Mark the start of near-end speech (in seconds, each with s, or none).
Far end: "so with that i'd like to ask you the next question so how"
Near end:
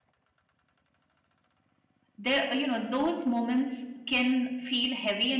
2.2 s